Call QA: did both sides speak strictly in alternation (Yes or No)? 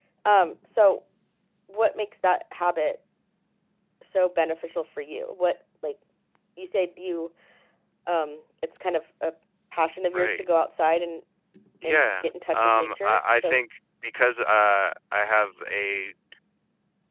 No